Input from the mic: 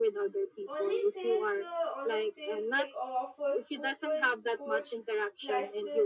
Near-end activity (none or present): present